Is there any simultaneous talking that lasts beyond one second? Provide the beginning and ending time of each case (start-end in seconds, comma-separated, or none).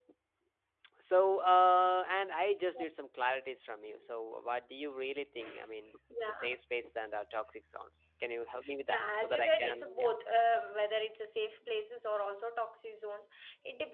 8.9-10.1